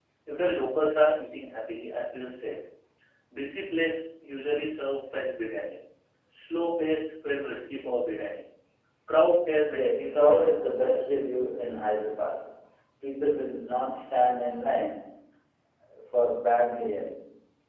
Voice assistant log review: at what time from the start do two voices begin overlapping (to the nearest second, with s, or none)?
10 s